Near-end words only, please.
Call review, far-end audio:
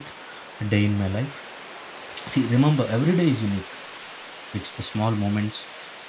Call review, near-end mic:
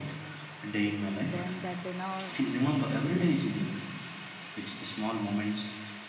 then the dinner

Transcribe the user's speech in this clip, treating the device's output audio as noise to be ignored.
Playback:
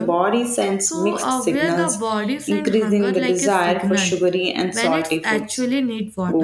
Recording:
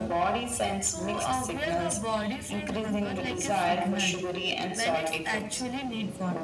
none

